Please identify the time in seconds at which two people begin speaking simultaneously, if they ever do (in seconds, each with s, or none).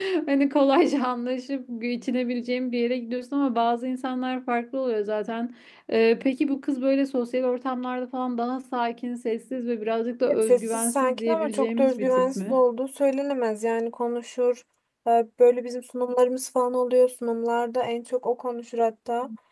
10.3 s